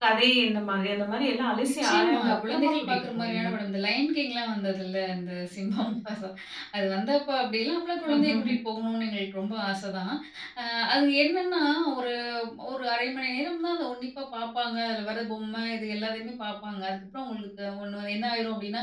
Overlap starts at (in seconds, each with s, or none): 1.7 s